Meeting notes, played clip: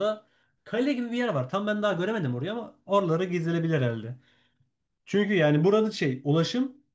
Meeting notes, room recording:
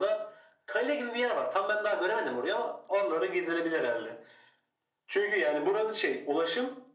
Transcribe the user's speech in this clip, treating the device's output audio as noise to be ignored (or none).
none